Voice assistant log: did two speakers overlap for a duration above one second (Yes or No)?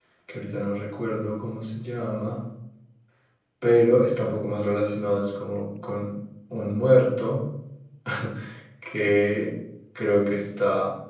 No